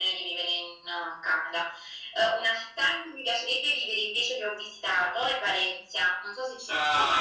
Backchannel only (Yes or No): No